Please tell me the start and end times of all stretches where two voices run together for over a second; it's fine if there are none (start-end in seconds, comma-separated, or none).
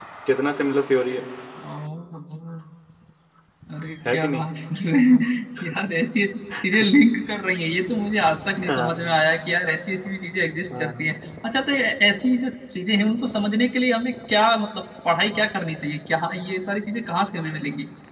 none